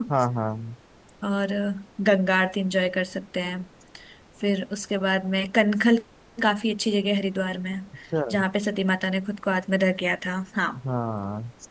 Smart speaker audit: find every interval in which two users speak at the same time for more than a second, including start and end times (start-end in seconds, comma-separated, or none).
none